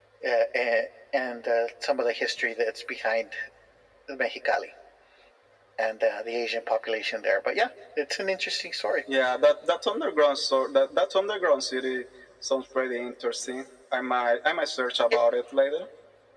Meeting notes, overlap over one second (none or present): none